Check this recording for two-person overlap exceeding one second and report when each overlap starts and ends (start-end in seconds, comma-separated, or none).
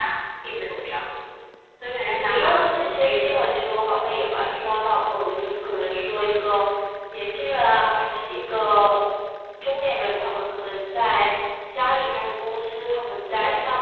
2.1-3.4